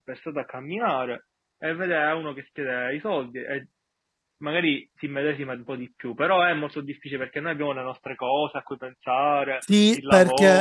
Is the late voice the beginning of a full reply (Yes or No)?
Yes